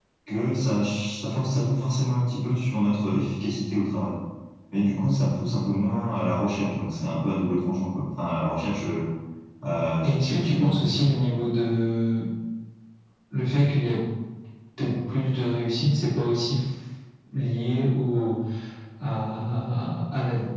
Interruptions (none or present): present